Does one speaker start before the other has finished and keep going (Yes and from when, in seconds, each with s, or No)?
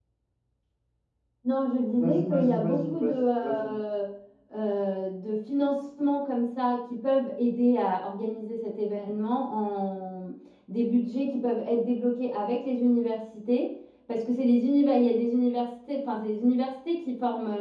Yes, from 1.9 s